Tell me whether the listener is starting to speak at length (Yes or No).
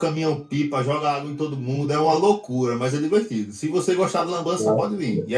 No